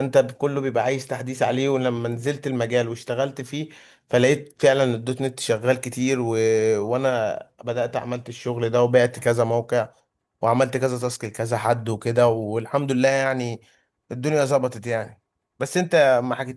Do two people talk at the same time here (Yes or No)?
No